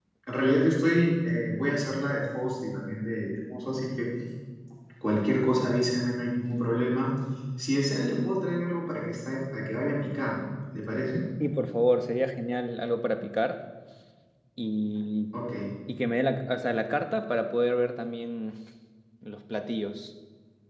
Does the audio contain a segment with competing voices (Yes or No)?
No